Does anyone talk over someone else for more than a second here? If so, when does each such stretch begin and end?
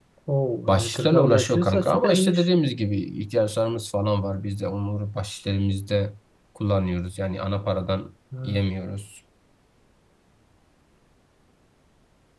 0.7-2.5

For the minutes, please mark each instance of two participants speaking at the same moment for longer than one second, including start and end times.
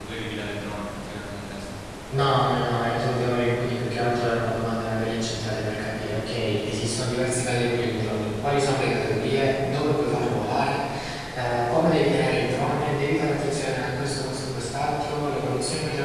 none

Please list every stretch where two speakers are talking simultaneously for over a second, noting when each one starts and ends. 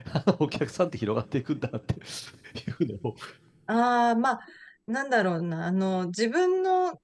none

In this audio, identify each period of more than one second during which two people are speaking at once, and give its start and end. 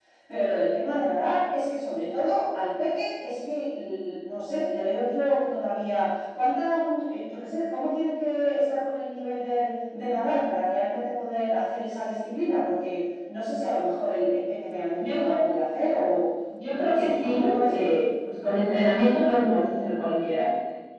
16.7-17.9

